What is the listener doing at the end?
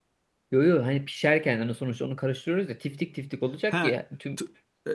taking over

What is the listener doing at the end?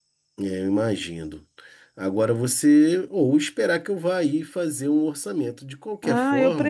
taking over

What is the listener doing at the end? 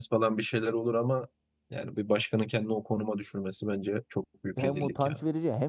taking over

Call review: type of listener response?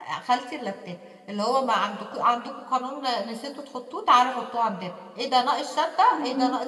listening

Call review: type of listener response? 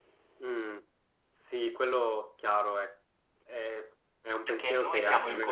taking over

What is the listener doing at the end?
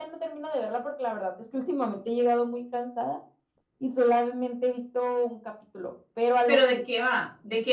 taking over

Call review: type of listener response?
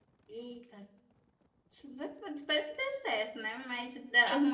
listening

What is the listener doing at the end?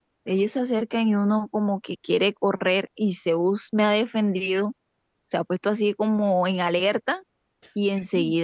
listening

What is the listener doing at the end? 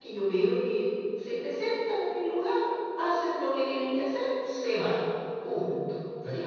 taking over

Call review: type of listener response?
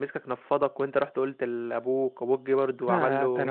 taking over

